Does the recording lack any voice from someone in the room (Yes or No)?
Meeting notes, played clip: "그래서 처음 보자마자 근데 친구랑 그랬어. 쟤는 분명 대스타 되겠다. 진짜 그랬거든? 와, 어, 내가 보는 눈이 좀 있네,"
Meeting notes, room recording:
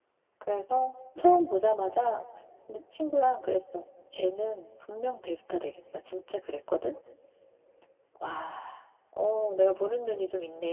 Yes